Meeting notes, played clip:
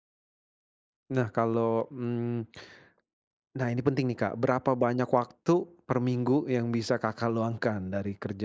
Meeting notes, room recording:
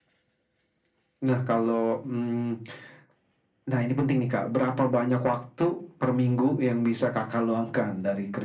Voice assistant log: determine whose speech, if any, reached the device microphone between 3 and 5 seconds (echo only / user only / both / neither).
echo only